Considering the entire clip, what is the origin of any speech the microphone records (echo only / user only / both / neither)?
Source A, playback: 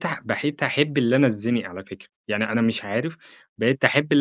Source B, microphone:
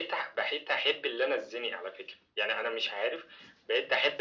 echo only